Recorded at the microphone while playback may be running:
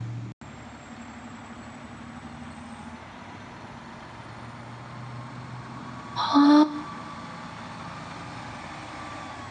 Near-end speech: present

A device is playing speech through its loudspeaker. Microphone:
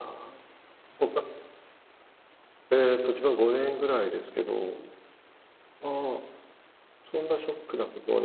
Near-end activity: present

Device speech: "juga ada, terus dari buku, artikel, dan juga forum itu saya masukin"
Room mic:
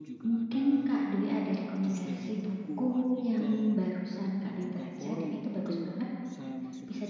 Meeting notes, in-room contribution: present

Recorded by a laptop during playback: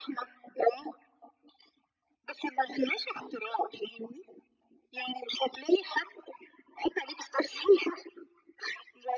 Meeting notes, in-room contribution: none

